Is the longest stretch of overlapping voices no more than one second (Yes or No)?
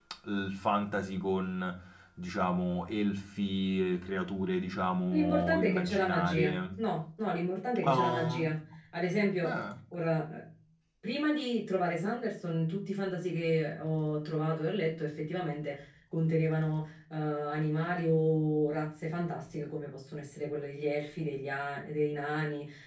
No